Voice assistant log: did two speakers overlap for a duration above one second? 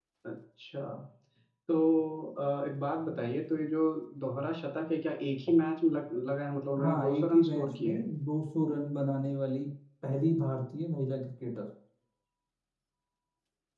Yes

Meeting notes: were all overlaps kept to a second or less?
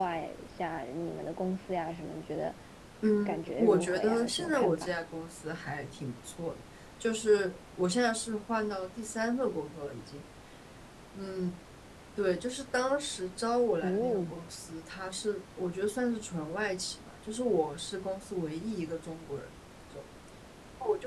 No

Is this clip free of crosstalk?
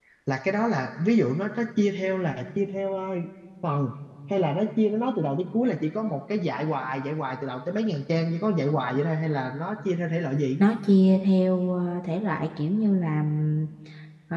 Yes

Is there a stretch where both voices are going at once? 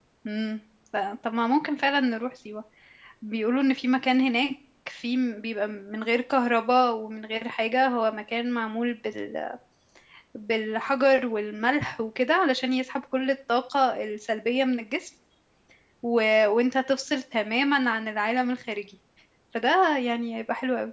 No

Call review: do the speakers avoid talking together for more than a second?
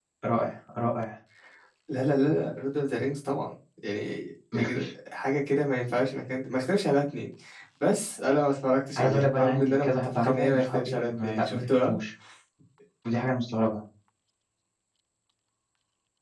No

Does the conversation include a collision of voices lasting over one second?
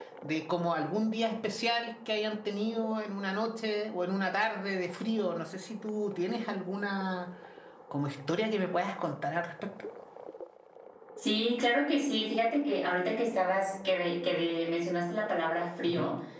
No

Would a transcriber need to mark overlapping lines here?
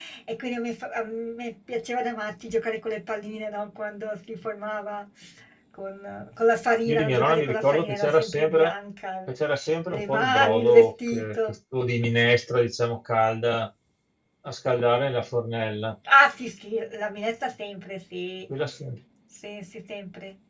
Yes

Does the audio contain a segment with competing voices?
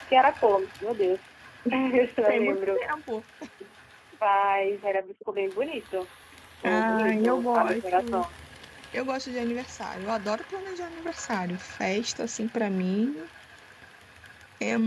Yes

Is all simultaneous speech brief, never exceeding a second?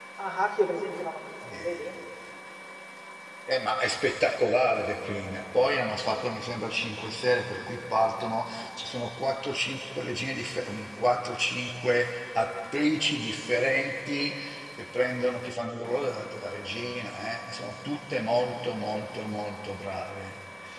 Yes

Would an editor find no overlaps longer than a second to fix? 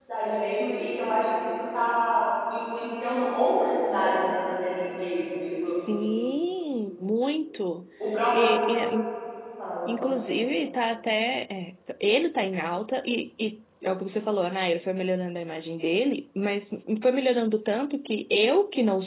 Yes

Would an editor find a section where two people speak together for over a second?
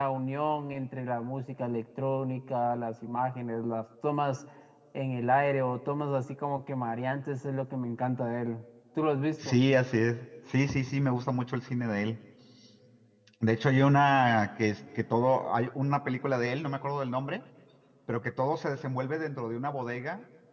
No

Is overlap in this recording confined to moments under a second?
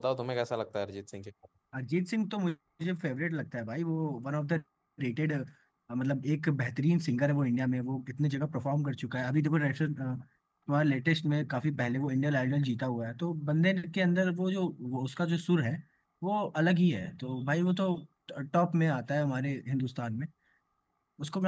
Yes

